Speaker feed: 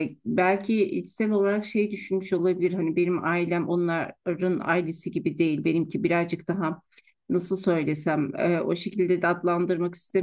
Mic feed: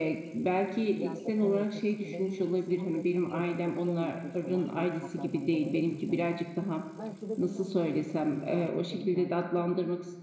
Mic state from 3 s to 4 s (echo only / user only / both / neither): both